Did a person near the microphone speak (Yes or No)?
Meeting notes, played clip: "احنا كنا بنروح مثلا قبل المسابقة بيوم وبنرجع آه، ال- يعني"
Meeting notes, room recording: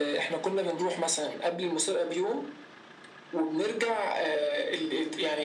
No